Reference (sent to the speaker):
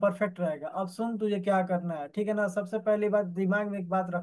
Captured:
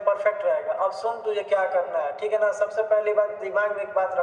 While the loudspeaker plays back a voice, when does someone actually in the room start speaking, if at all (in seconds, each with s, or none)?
none